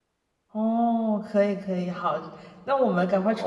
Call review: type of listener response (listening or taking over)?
listening